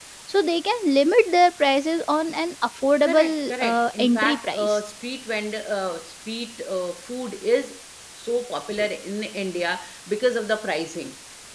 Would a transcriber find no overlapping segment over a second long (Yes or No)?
No